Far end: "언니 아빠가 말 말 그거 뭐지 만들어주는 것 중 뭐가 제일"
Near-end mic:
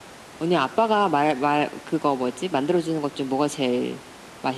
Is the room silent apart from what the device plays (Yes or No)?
Yes